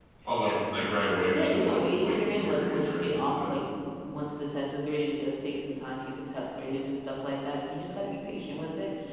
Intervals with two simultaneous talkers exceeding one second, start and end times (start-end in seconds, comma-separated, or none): 1.3-3.5